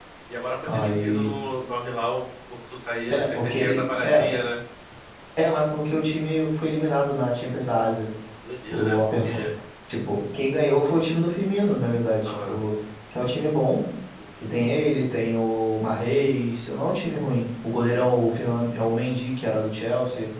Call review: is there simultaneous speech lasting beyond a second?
Yes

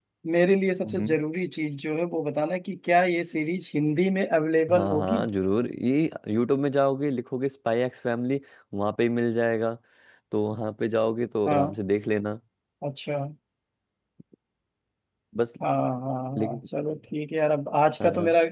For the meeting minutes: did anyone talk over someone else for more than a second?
No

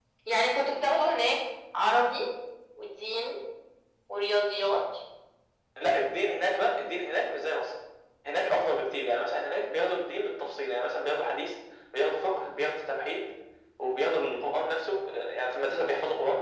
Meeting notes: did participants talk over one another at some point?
No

